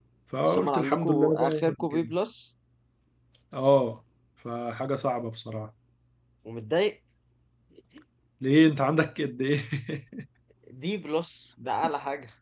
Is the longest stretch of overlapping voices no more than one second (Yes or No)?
No